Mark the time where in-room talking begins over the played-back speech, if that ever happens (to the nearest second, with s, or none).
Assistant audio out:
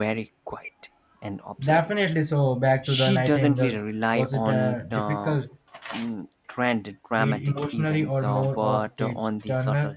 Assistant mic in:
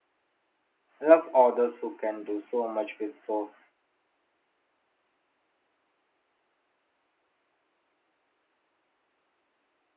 1 s